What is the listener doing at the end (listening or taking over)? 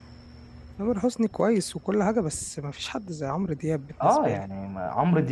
taking over